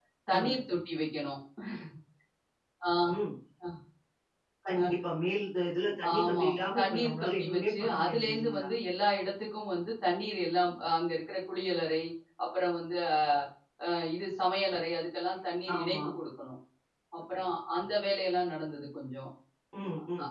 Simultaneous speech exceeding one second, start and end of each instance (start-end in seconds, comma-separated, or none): 6.2-8.7